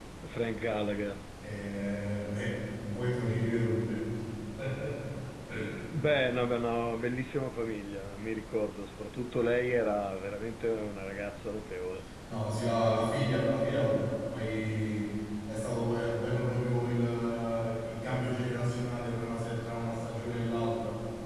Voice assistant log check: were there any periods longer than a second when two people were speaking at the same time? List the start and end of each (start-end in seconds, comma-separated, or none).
none